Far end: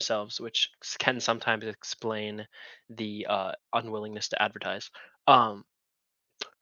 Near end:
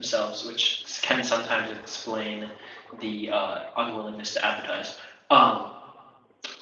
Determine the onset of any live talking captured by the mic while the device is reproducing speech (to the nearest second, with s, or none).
none